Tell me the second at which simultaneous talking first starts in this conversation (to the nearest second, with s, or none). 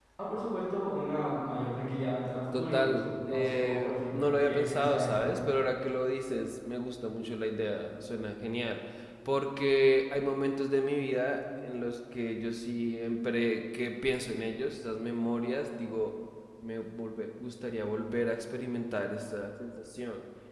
3 s